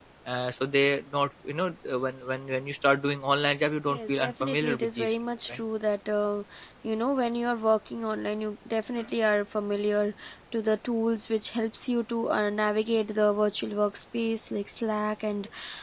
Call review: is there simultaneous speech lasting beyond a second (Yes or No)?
Yes